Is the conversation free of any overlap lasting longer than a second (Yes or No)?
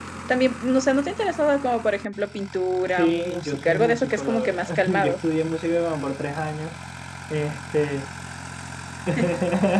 No